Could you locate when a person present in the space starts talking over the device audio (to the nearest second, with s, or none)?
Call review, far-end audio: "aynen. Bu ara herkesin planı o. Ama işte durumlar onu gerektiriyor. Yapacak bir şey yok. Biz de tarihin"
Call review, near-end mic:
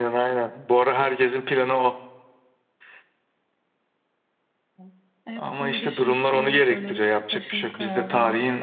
5 s